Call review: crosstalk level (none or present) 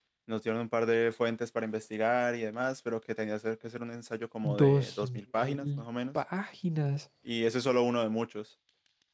present